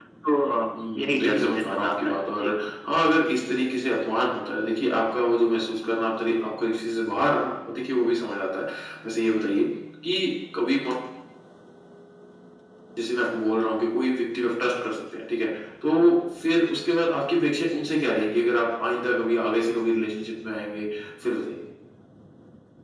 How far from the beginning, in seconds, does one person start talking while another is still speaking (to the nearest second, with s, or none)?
1 s